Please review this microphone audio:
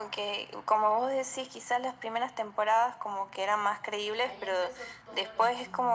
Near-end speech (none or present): present